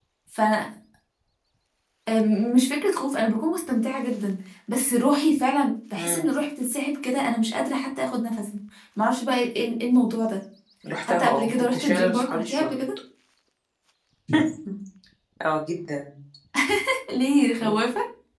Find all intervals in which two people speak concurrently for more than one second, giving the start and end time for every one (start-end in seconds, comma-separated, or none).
11.1-12.8